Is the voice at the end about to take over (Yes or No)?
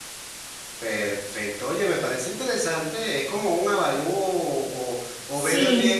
No